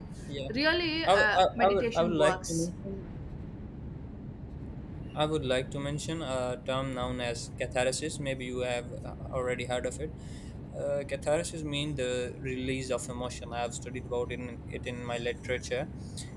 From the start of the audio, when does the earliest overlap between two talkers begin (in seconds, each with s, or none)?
1.1 s